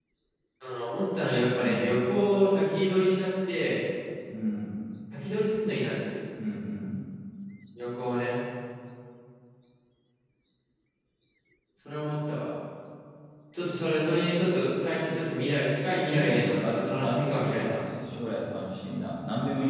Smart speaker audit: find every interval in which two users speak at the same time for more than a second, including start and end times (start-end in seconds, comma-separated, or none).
16.0-17.8